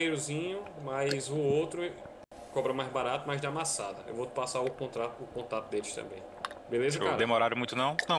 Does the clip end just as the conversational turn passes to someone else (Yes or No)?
Yes